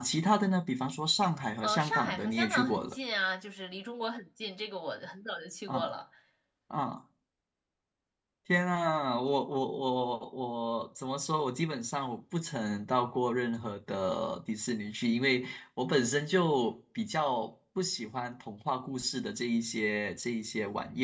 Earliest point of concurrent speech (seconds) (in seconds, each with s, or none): 1.6 s